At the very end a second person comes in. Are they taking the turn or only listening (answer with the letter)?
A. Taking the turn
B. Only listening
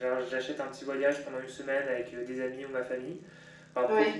B